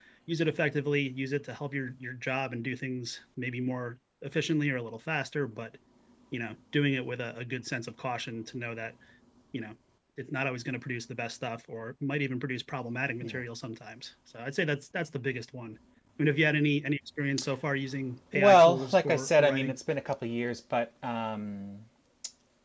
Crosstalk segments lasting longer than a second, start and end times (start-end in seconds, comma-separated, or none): 18.3-19.8